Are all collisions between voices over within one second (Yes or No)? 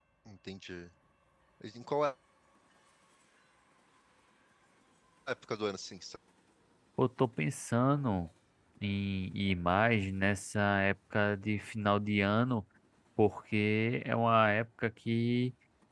Yes